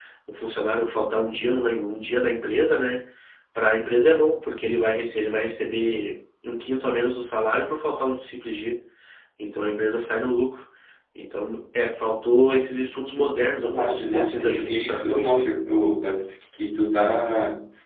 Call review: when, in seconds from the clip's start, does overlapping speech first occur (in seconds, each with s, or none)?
13.6 s